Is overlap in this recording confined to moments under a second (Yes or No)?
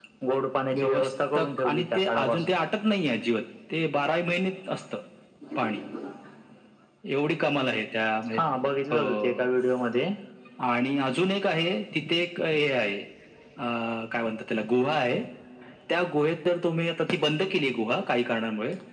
No